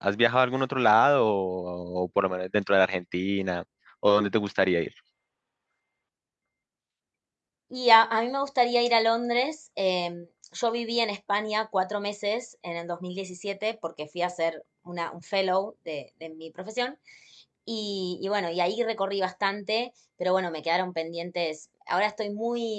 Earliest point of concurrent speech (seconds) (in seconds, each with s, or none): none